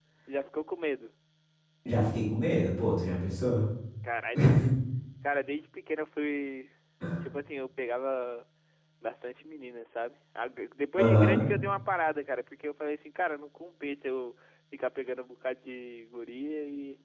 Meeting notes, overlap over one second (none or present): none